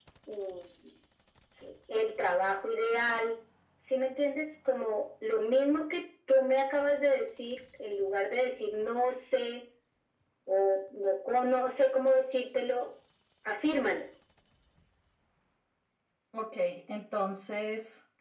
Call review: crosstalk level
none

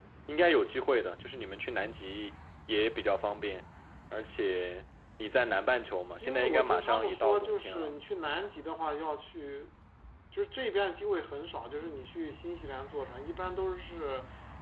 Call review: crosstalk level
present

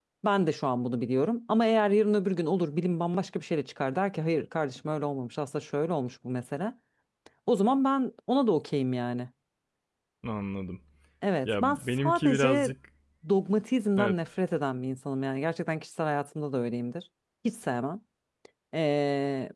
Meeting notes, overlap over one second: present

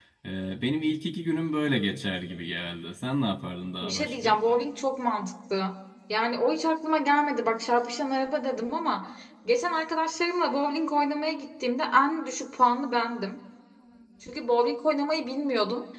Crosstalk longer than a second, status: none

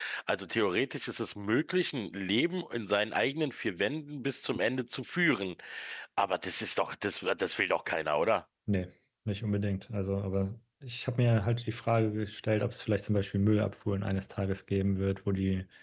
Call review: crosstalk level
none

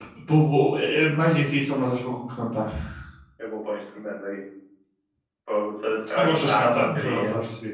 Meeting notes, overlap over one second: present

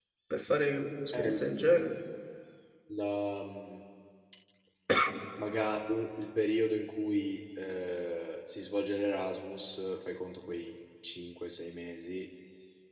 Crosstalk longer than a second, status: none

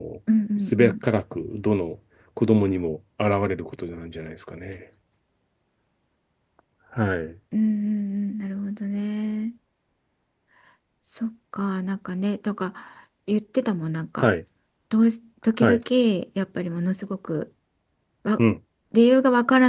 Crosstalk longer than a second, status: none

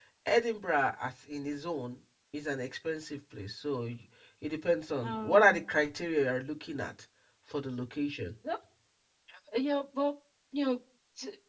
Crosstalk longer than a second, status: none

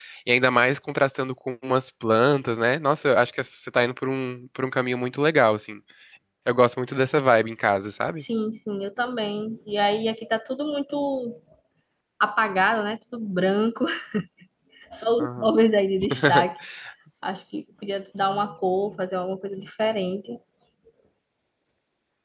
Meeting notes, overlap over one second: none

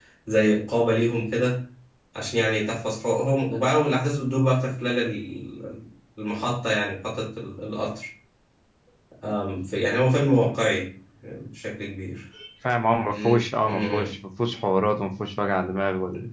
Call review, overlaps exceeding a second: present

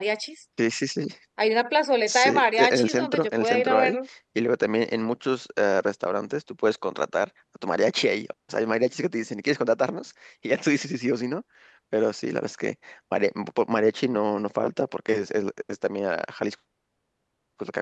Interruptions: present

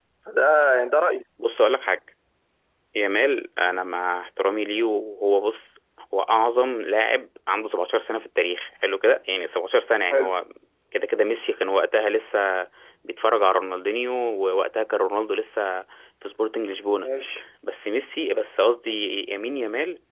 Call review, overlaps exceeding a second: none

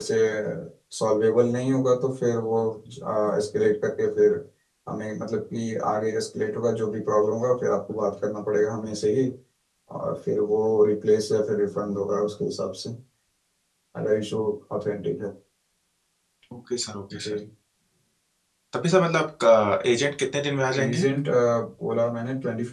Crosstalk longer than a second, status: none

